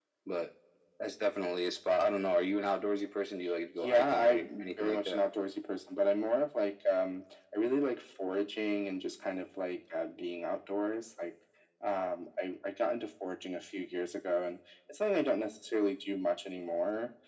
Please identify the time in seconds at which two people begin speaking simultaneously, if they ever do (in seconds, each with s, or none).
3.8 s